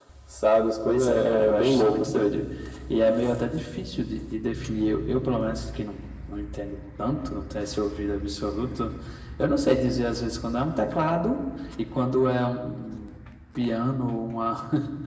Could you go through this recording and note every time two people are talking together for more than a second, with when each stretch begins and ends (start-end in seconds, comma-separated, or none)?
0.9-2.2